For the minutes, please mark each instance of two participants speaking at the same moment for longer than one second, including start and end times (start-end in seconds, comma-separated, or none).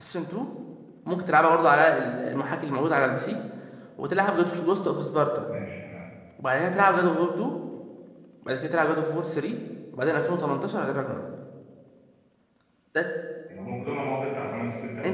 none